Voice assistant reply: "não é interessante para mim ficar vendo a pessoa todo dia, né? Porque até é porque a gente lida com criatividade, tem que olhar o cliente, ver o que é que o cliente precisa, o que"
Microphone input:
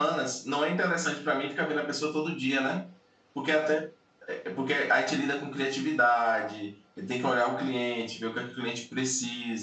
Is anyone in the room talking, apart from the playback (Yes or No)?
No